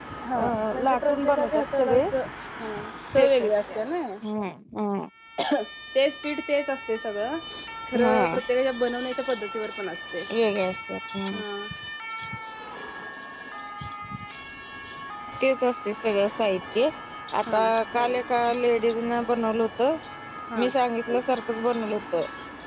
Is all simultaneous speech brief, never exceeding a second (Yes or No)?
No